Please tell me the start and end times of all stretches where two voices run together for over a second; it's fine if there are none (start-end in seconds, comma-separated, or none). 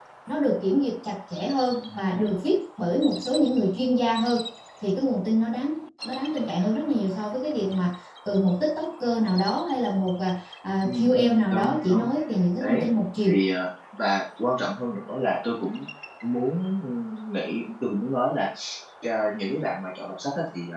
10.8-12.1